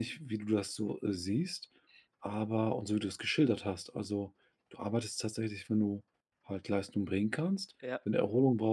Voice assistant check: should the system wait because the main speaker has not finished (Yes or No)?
Yes